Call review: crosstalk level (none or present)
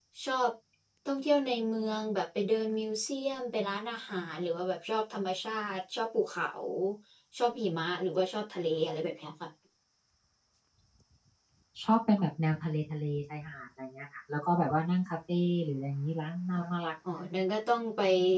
none